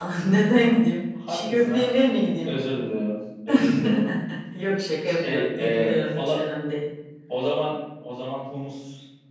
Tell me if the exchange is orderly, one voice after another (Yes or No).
No